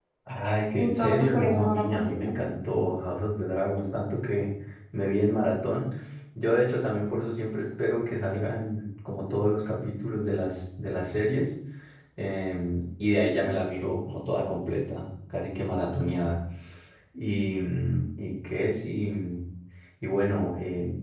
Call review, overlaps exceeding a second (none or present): present